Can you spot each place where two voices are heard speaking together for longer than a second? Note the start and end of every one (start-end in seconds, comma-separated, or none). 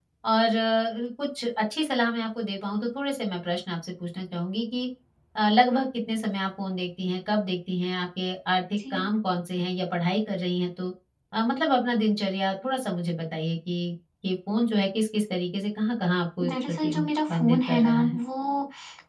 16.5-18.2